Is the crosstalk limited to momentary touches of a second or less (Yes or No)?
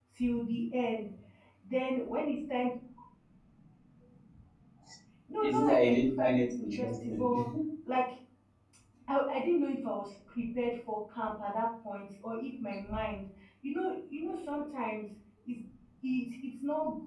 No